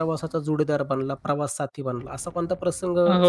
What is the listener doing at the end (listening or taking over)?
taking over